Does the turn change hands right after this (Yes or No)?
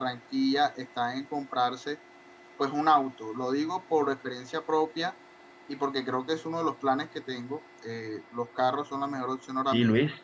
Yes